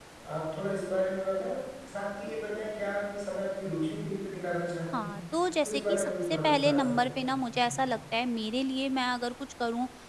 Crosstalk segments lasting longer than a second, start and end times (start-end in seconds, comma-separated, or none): 5.6-7.8